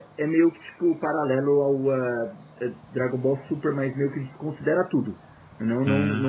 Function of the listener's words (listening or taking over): listening